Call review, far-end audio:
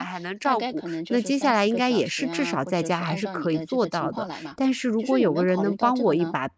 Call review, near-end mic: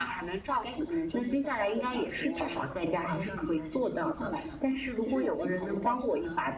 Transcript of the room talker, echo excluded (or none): none